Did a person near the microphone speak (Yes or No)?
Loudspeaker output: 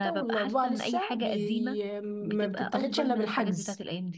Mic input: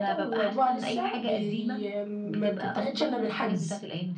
No